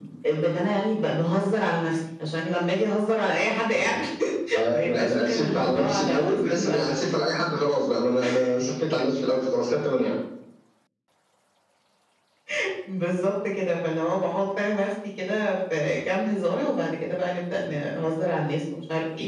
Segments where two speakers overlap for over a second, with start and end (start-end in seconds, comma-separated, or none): 4.7-6.9